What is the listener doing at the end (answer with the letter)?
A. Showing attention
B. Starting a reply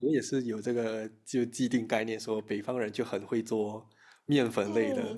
B